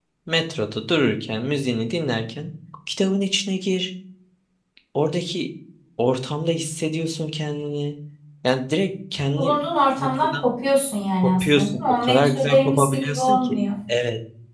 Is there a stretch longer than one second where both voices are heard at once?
Yes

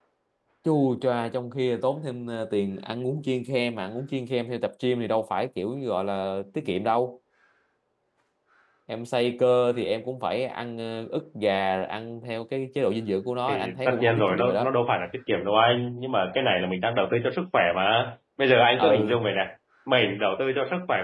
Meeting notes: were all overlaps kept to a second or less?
No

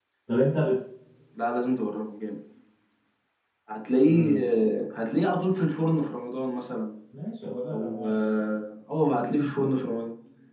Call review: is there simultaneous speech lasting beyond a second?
No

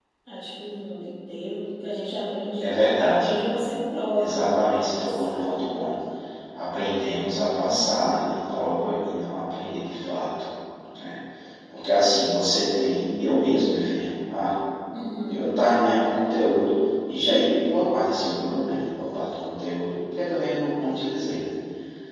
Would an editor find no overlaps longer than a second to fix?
No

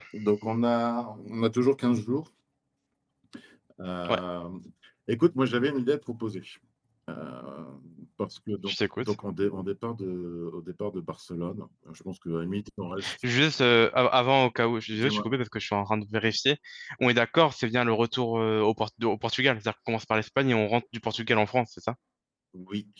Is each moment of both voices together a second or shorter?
Yes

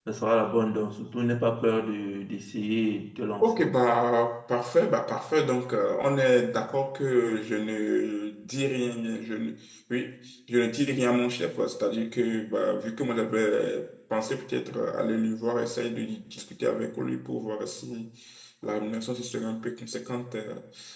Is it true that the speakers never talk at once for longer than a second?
Yes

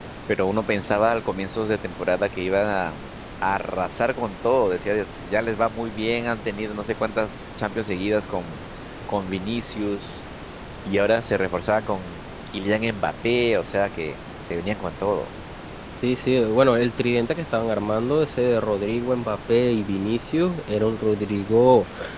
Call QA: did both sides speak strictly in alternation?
Yes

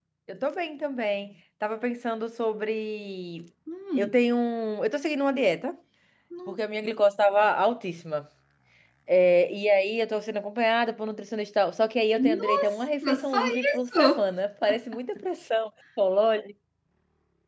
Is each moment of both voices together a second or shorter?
No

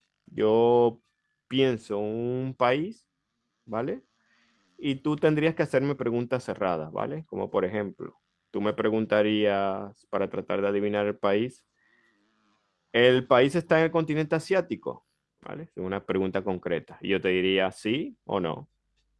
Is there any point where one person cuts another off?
No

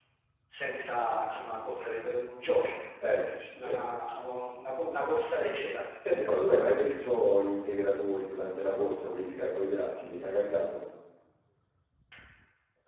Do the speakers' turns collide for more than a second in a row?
No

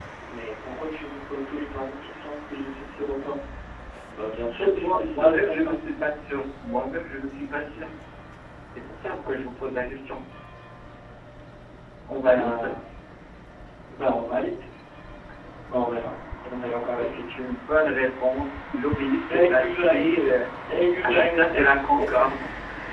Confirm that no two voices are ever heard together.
No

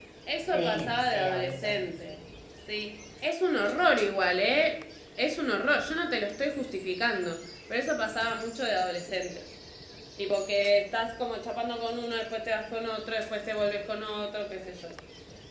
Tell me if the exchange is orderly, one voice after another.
No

